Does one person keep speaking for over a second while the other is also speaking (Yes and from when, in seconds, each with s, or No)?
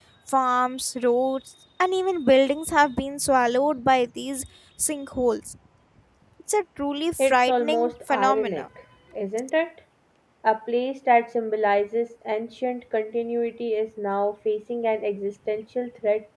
Yes, from 7.2 s